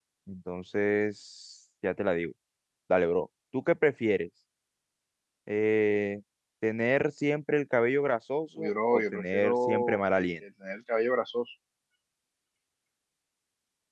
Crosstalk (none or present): present